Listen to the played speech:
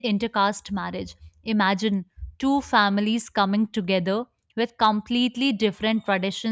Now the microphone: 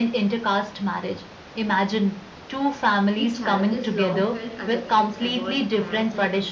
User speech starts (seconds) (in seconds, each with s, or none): 3.1 s